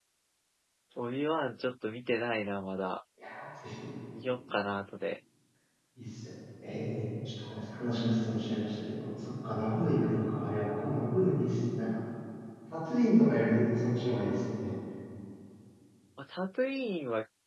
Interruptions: none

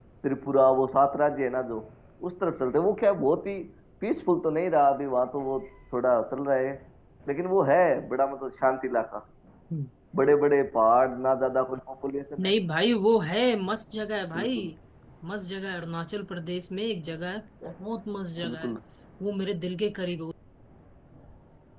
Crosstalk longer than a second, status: none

